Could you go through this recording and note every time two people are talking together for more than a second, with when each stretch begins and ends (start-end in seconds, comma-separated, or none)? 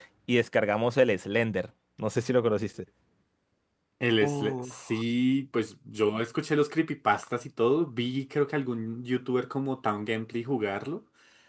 none